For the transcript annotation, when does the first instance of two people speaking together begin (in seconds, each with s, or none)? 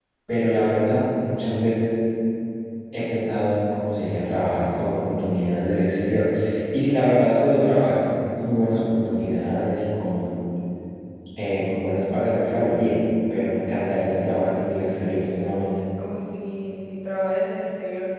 none